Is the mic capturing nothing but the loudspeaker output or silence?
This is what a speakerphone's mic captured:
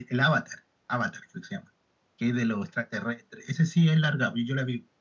Yes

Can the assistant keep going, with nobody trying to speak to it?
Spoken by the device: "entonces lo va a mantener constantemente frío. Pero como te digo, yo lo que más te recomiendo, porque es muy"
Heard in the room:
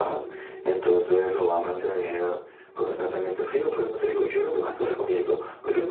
Yes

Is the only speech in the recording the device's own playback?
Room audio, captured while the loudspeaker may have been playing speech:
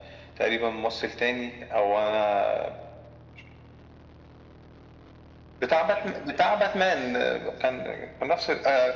Yes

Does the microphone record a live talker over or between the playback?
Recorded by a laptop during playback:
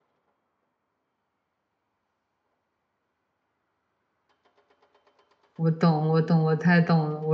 Yes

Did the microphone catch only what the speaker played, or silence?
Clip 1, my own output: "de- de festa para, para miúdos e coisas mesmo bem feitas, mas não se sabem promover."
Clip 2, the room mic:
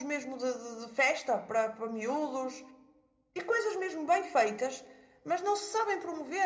Yes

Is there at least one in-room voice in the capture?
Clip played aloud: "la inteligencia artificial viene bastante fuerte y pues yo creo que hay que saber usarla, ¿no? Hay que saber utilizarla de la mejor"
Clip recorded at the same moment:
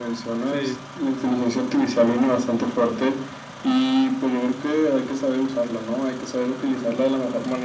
Yes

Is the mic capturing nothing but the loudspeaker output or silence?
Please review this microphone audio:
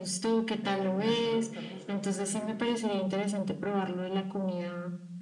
No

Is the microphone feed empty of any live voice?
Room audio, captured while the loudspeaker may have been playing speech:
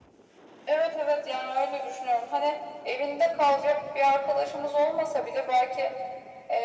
Yes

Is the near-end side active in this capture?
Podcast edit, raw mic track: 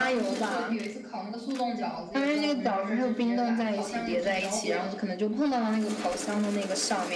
Yes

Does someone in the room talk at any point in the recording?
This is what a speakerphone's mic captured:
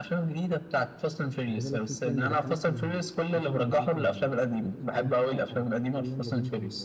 Yes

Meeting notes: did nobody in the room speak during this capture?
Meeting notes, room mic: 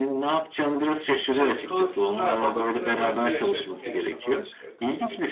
No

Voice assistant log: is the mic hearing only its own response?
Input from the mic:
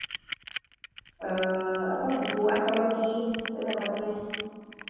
No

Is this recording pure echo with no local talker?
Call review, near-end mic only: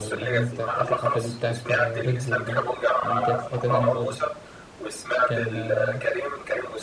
No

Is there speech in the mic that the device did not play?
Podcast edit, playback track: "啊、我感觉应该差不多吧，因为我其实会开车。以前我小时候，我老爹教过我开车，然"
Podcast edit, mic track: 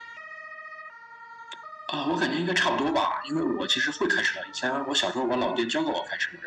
No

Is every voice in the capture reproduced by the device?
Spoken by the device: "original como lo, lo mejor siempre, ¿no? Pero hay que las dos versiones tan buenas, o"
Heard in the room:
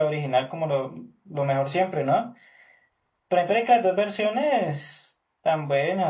Yes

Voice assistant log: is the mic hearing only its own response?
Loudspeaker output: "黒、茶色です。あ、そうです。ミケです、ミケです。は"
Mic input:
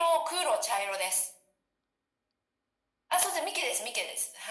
Yes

